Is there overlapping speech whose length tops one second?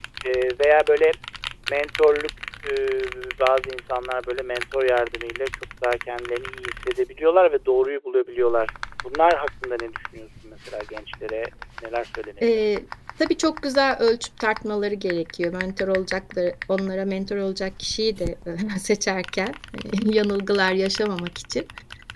No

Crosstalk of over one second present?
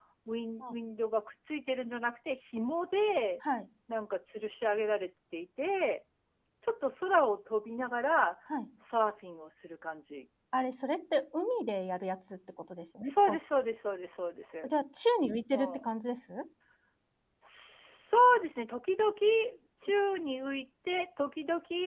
No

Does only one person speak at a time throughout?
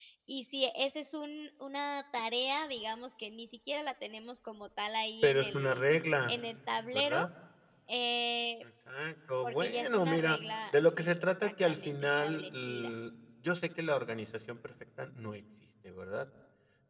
No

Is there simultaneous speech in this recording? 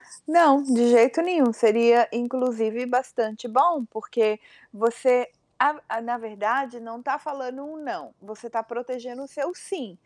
No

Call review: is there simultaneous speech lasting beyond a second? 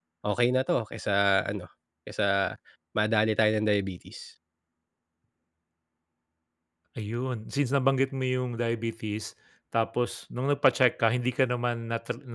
No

